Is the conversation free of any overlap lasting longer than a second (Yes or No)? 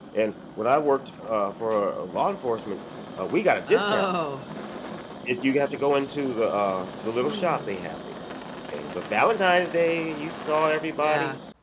Yes